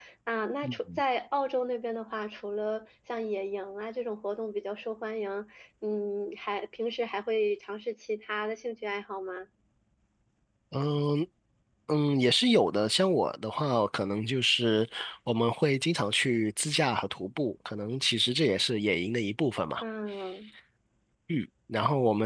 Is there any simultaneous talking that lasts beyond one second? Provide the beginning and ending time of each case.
none

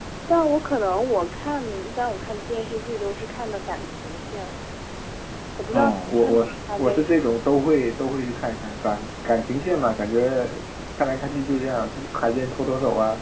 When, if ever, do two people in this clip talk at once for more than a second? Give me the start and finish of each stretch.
5.7-7.7

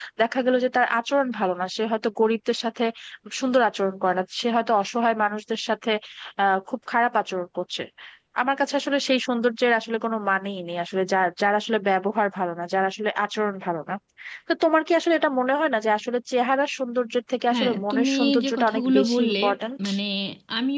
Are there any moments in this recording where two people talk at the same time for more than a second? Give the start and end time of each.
17.5-19.4

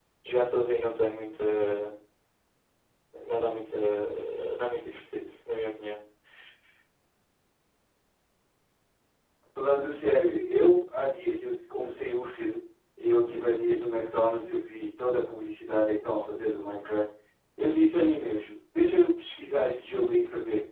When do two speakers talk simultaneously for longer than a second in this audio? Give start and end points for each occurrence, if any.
none

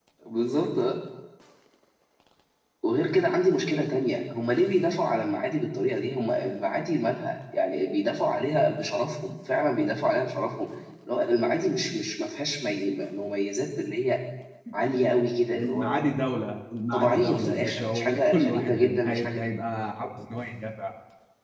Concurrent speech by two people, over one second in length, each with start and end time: 16.9-19.4

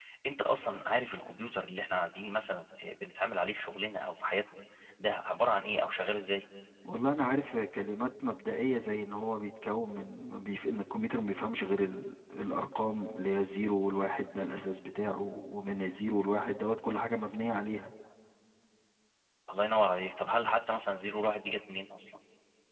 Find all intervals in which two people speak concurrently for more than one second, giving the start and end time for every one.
none

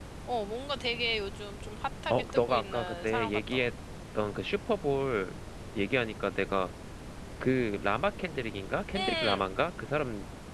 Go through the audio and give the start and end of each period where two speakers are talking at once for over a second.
2.1-3.6

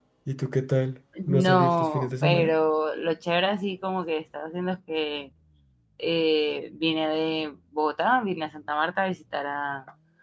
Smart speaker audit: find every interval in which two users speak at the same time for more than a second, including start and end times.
1.3-2.5

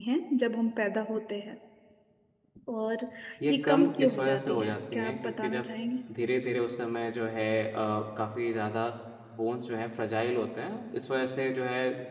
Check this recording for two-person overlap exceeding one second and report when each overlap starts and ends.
3.5-5.7

